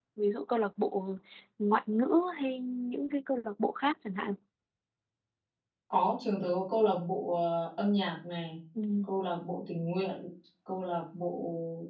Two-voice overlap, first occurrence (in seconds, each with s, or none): none